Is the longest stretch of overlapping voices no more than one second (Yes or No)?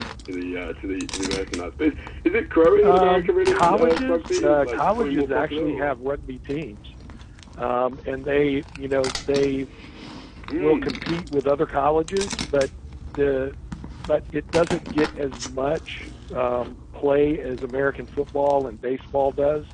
No